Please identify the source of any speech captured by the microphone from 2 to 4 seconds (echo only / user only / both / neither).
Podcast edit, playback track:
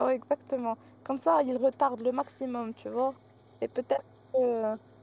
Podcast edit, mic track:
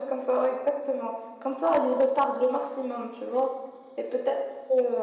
echo only